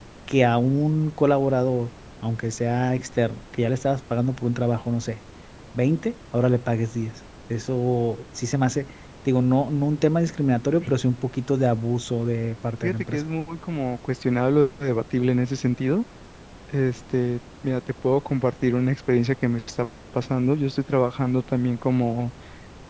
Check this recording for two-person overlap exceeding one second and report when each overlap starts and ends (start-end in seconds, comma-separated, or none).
none